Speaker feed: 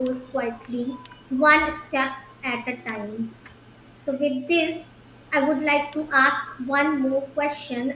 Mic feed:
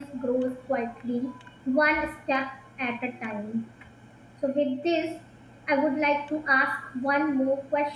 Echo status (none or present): present